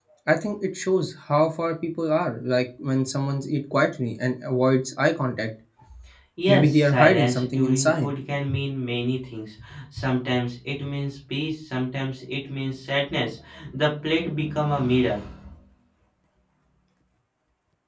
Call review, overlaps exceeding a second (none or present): present